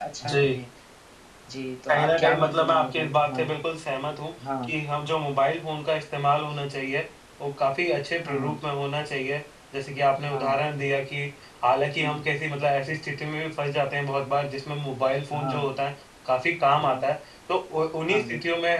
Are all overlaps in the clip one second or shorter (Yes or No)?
No